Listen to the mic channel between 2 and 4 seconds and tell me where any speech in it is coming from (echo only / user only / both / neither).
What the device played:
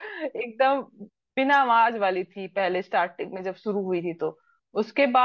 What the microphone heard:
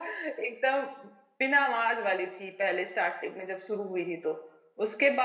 echo only